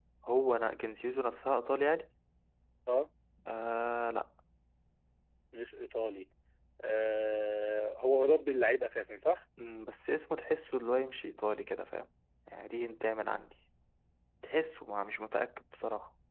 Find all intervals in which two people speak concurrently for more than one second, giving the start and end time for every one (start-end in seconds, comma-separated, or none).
none